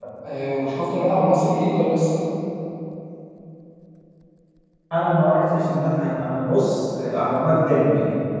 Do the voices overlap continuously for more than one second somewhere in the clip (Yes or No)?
No